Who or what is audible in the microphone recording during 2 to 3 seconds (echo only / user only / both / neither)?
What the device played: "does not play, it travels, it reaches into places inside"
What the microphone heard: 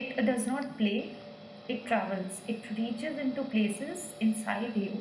echo only